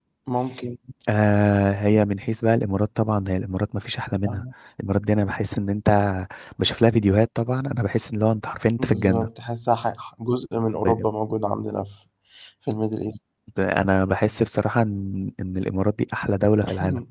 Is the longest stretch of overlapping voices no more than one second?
Yes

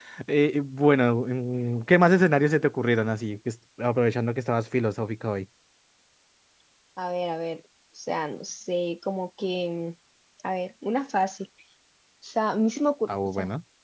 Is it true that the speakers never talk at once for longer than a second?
Yes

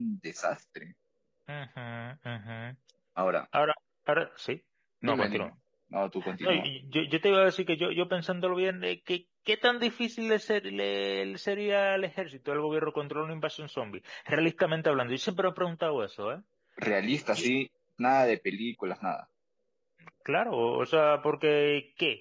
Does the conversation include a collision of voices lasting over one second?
No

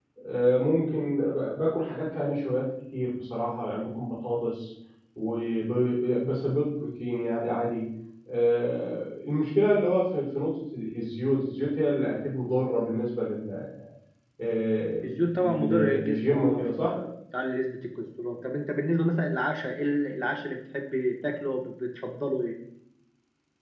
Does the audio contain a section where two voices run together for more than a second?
Yes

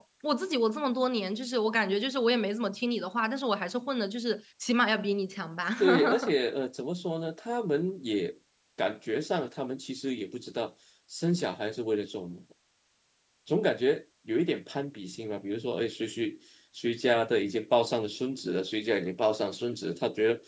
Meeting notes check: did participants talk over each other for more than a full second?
No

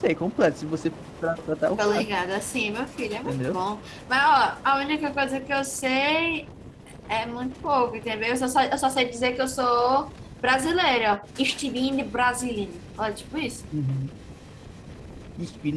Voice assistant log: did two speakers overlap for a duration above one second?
No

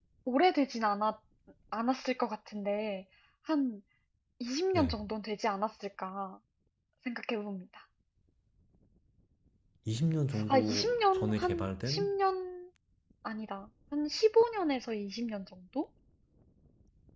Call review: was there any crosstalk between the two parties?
Yes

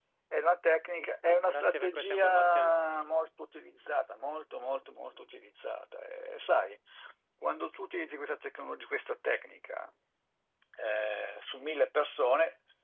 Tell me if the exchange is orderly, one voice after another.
No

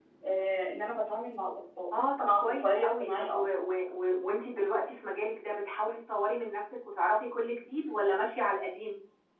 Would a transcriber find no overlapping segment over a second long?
No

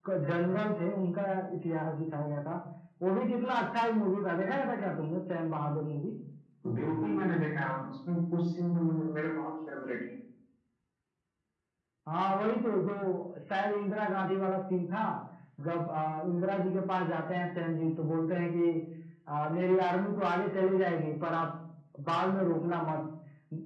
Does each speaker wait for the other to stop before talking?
Yes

